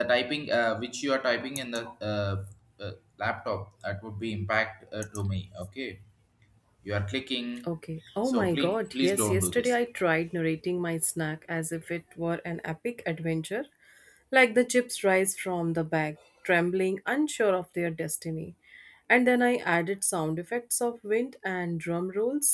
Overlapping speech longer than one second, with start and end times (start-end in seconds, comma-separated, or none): 8.3-9.7